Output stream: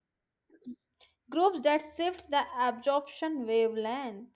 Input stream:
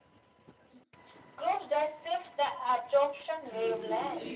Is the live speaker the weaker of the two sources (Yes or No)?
Yes